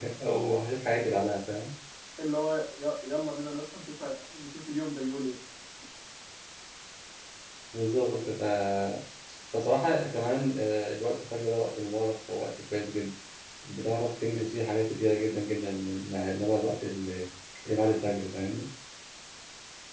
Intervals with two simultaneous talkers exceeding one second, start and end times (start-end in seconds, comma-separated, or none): none